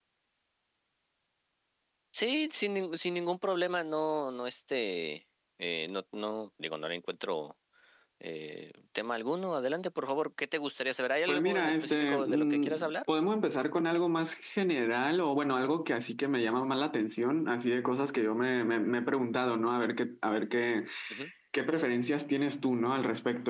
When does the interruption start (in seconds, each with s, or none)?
11.3 s